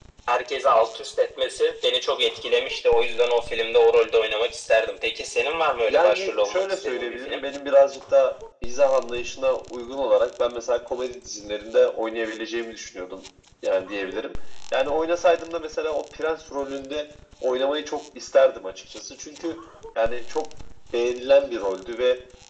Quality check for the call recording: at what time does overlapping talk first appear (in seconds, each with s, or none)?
5.9 s